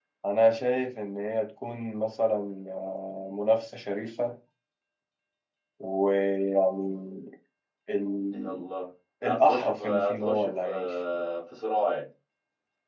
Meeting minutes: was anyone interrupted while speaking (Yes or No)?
Yes